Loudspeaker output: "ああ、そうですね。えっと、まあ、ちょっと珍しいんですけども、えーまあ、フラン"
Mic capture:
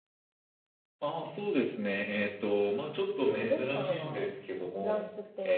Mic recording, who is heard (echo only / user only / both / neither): both